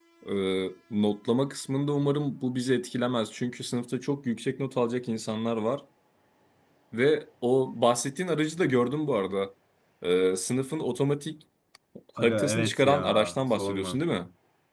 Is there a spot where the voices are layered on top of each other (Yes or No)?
Yes